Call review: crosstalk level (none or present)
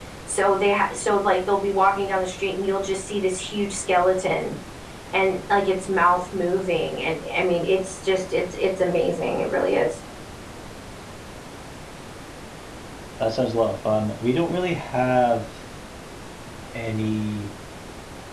none